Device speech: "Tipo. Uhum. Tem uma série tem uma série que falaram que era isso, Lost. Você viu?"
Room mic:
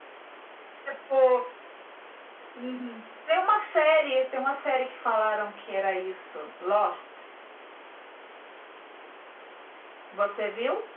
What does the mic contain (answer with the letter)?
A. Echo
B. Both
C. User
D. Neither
A